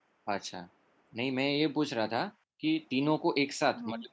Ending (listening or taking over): listening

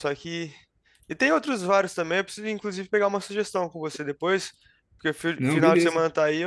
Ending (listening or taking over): listening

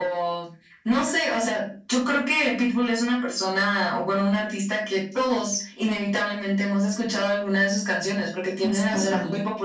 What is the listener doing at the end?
listening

